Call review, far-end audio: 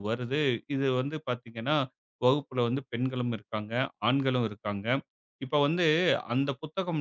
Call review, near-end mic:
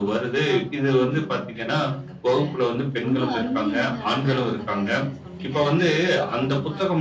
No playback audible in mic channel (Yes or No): No